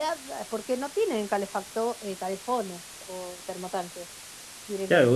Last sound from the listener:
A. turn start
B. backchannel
A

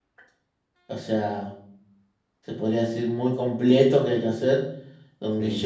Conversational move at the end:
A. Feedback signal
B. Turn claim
A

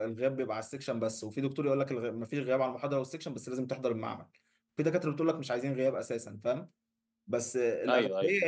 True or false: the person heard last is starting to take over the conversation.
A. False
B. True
A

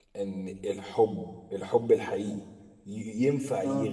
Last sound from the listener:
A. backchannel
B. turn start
A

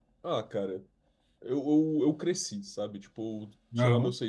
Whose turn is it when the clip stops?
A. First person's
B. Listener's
A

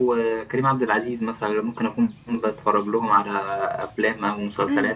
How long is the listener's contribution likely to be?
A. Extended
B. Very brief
A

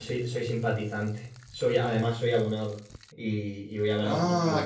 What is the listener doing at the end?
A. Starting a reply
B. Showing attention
A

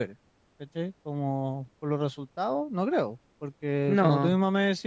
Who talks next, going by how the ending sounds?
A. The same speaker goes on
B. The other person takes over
A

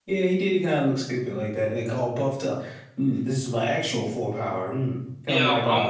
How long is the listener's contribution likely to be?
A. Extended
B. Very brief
A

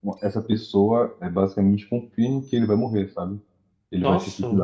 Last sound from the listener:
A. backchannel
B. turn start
A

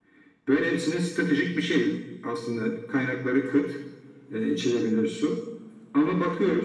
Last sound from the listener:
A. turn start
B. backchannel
B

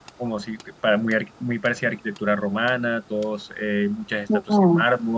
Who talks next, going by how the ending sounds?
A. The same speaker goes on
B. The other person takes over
A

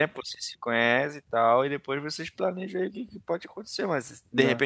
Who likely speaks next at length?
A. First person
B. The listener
A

